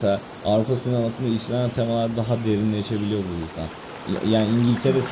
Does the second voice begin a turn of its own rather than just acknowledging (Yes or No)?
No